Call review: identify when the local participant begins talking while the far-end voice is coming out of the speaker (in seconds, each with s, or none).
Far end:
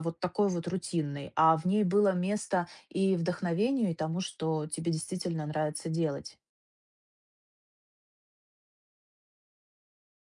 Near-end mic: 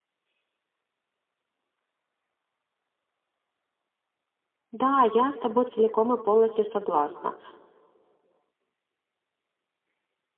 4.7 s